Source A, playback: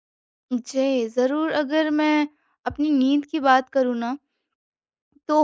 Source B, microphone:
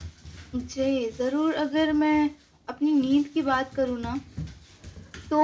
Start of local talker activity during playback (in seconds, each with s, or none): none